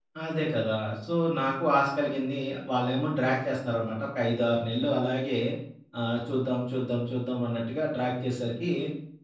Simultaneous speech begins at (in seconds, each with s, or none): none